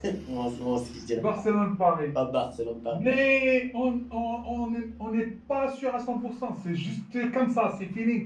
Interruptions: none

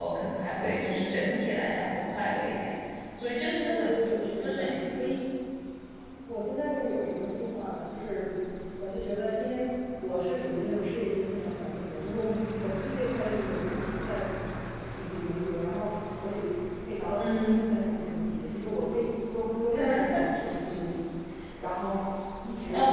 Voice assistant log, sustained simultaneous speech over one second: none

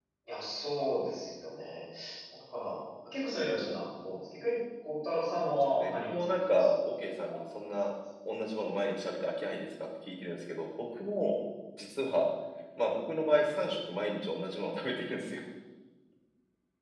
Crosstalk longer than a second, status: present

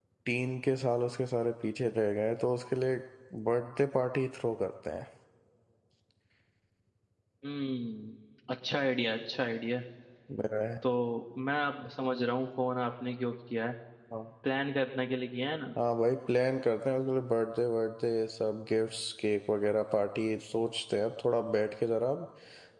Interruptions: none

